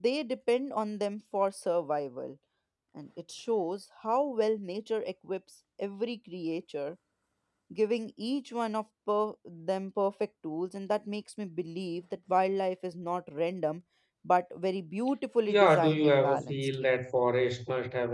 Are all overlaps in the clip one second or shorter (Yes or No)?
No